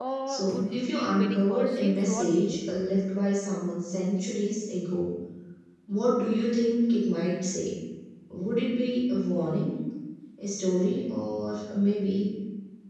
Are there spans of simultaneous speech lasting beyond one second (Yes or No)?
Yes